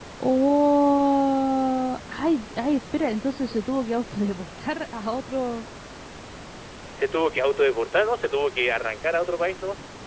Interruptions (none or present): none